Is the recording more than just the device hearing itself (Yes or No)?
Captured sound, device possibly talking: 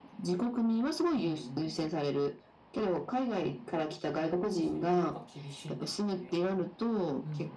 No